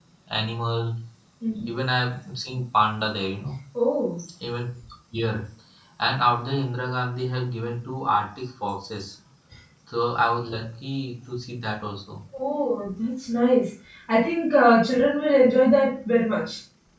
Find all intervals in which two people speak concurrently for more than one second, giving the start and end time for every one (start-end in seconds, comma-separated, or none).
none